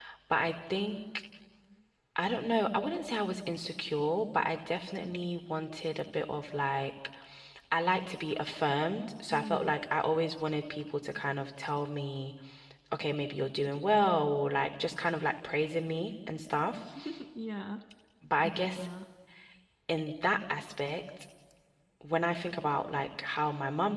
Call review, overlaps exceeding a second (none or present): none